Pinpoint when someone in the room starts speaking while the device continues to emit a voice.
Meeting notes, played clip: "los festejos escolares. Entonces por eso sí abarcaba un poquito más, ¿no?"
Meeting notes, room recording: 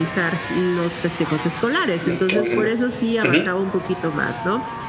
2.0 s

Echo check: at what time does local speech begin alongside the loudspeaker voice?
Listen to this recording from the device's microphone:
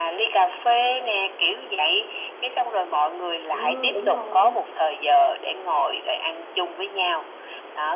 3.5 s

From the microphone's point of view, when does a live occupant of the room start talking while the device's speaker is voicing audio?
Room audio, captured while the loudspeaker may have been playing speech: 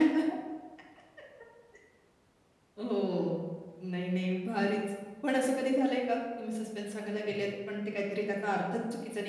none

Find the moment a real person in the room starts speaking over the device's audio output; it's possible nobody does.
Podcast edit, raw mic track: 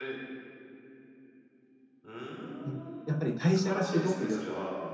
2.6 s

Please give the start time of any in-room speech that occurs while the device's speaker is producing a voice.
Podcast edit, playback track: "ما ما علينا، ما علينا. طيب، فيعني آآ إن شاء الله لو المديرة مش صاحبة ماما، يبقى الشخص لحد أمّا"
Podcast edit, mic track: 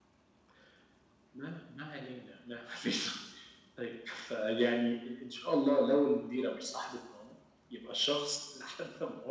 none

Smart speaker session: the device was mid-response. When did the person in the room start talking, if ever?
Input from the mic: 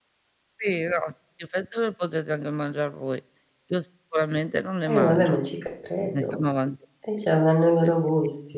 4.9 s

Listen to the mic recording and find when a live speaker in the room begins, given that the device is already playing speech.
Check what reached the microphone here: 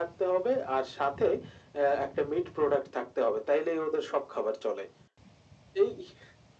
none

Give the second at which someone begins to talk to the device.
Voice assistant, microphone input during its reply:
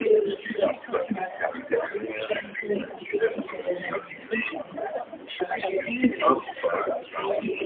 none

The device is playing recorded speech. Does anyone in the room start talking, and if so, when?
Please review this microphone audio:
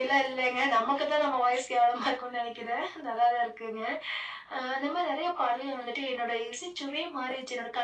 none

